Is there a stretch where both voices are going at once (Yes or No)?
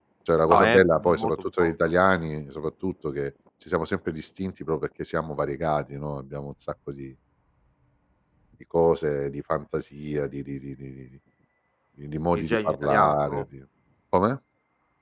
Yes